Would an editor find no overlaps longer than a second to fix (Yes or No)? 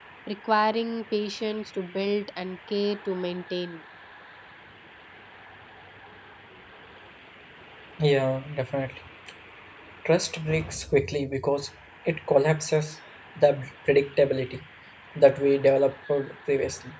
Yes